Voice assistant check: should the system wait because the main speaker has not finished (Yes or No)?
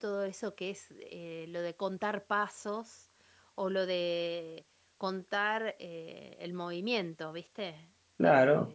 No